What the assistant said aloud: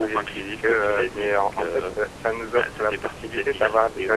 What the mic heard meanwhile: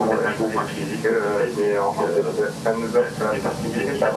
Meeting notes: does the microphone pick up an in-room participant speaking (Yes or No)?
No